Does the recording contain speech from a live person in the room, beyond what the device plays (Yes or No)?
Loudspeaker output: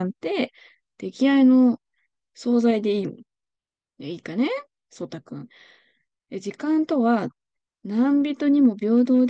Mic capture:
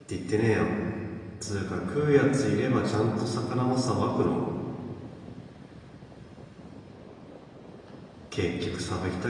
Yes